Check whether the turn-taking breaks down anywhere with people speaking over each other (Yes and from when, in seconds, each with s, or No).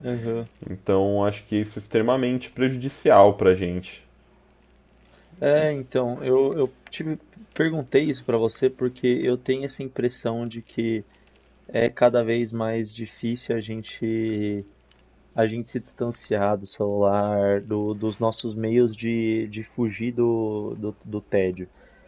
No